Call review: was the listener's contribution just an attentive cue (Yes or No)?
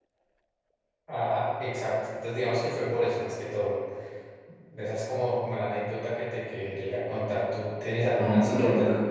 No